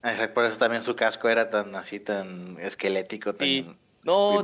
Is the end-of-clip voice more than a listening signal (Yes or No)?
Yes